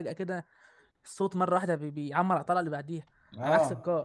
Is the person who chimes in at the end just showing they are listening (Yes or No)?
No